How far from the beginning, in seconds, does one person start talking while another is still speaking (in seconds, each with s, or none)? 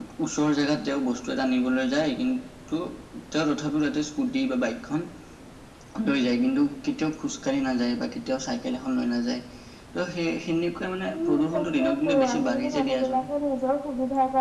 11.1 s